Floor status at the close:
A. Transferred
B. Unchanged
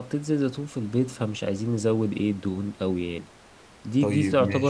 B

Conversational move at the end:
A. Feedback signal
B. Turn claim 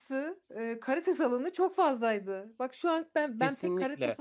B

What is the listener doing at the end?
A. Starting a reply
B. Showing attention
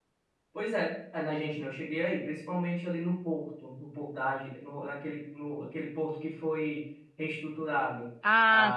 A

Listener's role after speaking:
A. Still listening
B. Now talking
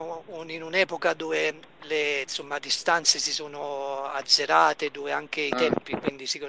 A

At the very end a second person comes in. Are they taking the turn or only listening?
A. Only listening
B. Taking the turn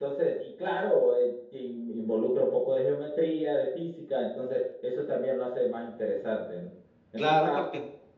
B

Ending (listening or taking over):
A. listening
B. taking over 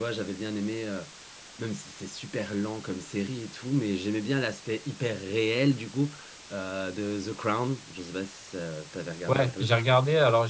B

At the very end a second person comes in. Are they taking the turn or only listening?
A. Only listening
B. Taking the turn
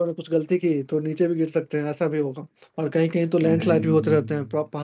A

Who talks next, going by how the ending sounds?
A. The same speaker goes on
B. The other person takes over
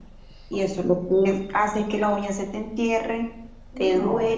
A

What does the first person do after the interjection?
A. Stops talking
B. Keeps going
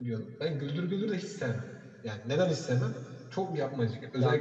B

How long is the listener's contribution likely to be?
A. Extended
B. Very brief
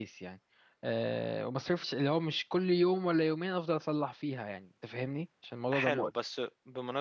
A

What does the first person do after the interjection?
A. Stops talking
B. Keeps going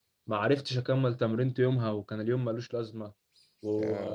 B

